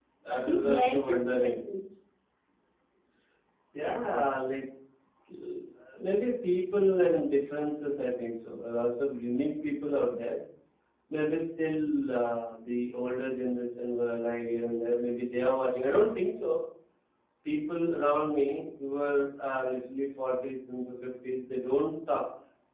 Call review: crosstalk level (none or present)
present